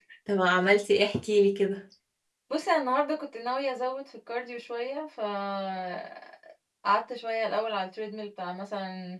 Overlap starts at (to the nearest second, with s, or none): none